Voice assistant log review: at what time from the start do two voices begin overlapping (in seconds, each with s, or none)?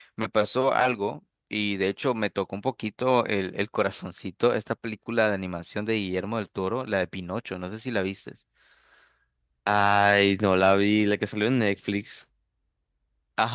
none